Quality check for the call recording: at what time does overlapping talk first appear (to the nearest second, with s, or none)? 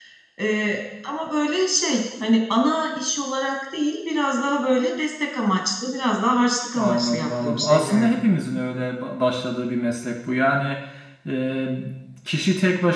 7 s